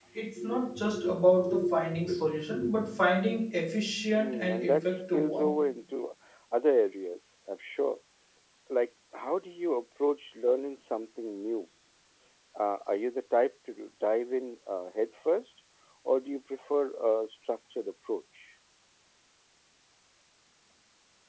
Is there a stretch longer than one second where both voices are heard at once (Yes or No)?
Yes